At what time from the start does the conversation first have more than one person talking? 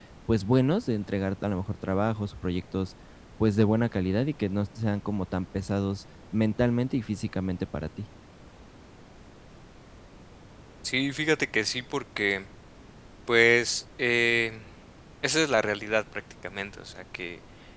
none

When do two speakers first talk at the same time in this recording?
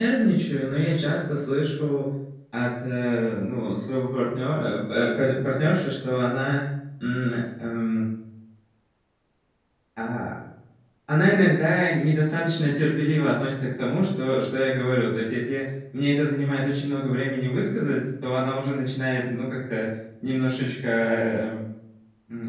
none

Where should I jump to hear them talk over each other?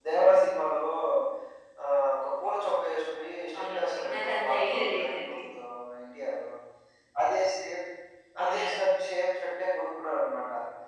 3.6 s

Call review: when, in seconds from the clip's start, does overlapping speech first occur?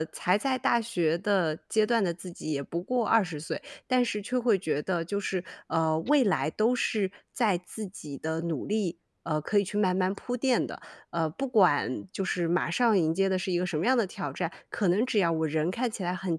none

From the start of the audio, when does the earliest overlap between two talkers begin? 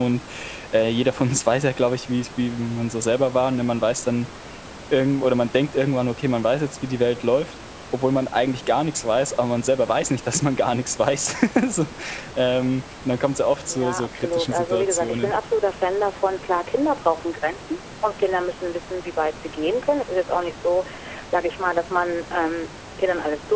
13.7 s

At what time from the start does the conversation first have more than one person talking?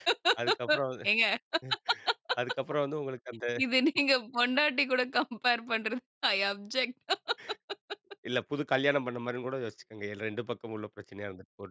none

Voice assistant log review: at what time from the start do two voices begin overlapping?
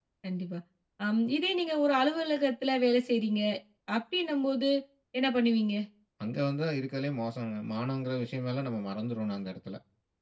none

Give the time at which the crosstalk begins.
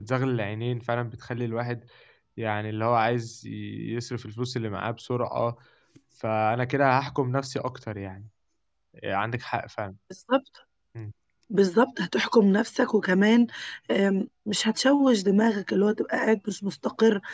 none

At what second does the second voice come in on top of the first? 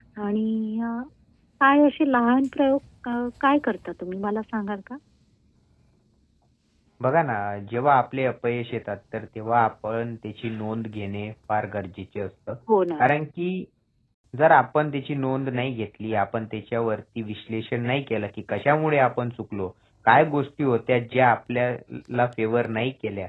none

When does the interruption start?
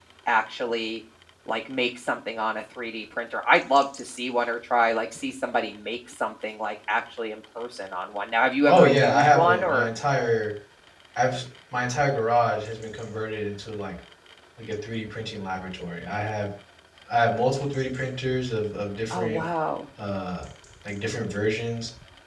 8.7 s

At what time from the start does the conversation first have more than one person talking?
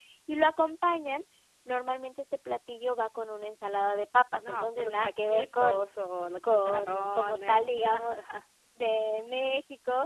4.3 s

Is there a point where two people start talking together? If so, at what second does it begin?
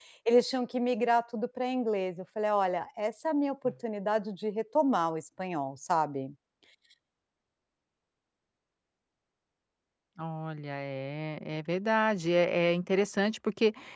none

